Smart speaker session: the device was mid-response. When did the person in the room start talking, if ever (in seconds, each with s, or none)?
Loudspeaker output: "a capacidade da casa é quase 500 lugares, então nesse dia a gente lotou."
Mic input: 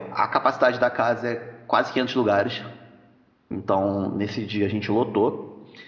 none